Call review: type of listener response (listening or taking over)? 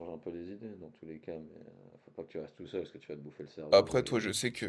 taking over